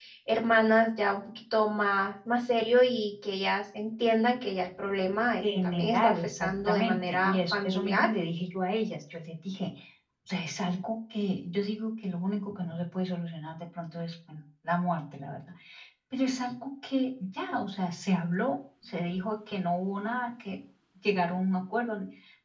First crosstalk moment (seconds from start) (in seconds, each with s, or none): 5.4 s